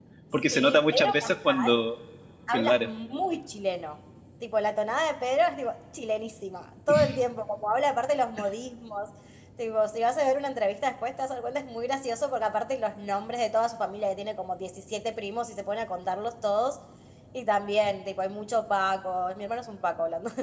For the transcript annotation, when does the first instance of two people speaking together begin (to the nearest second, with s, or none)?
1 s